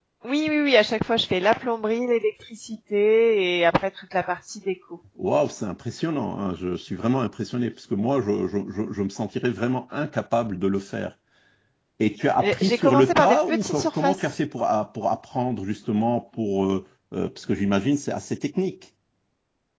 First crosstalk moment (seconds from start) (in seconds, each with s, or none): 12.4 s